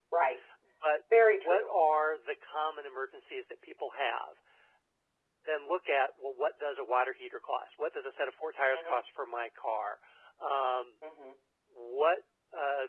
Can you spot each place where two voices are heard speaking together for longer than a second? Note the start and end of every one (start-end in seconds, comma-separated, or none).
none